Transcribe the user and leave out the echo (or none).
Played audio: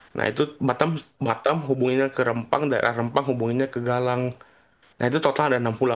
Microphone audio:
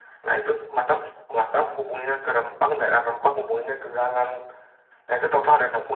none